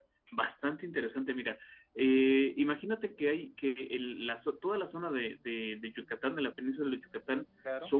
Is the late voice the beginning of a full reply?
No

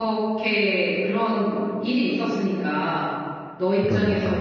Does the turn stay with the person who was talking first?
Yes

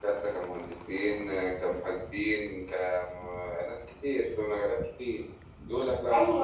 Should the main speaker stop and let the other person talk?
Yes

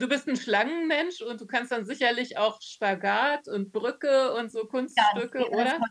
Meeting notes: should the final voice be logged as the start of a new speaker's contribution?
Yes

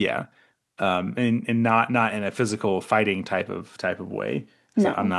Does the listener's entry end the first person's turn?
No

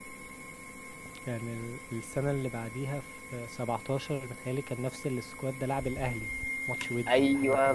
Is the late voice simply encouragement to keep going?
No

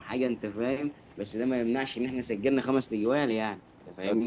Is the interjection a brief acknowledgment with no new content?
No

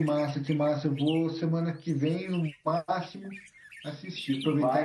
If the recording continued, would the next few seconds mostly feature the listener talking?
No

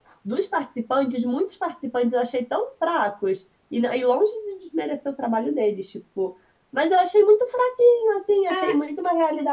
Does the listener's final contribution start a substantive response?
No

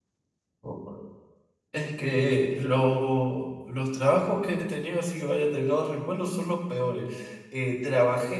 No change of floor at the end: Yes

